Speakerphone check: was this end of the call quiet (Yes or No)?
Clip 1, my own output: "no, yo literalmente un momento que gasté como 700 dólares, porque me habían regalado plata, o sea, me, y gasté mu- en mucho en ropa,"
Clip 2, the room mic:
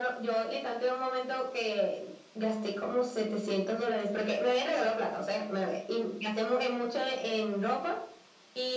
Yes